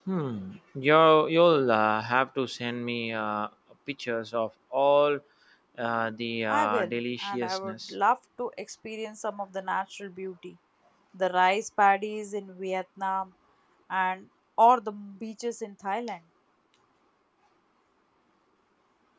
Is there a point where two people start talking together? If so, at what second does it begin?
6.5 s

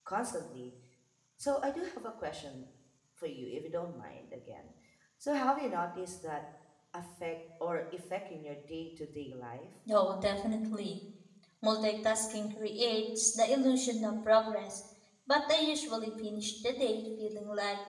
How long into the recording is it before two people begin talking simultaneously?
none

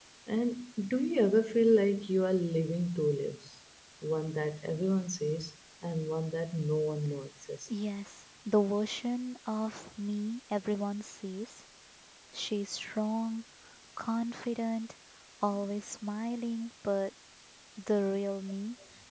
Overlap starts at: none

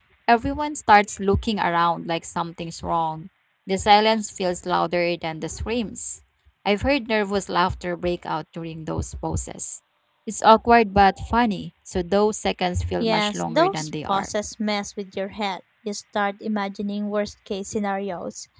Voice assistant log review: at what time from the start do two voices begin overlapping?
13.0 s

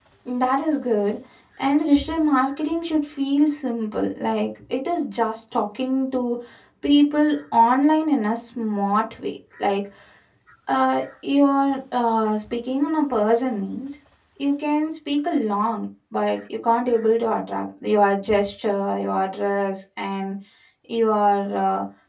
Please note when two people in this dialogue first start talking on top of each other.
none

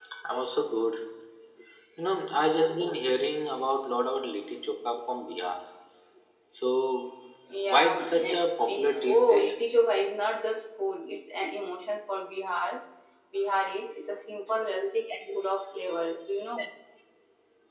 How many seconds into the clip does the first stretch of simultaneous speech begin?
7.7 s

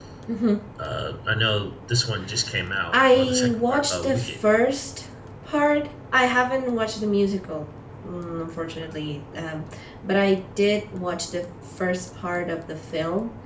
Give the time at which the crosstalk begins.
2.9 s

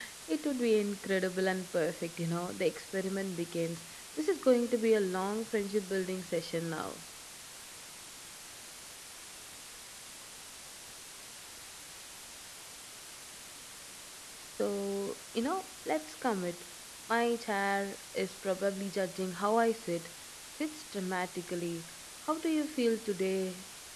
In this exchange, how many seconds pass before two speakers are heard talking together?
none

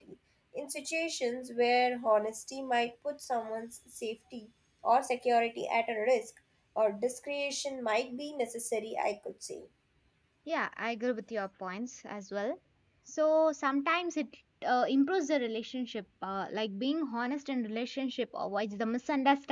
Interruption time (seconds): none

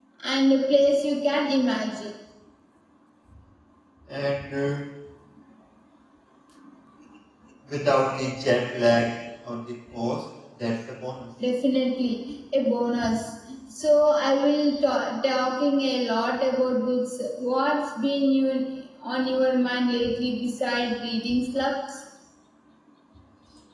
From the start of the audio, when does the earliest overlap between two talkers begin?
none

